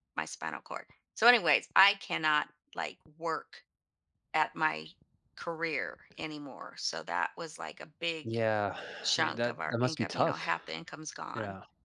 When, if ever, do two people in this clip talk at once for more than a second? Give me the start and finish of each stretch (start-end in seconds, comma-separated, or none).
9.2-10.4